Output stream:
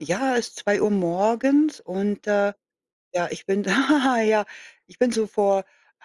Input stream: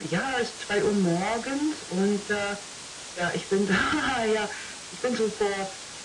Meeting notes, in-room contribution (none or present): none